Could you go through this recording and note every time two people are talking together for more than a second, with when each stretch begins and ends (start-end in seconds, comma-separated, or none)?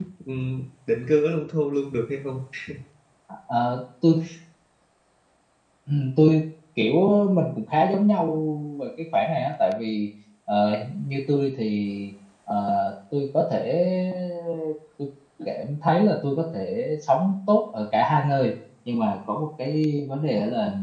none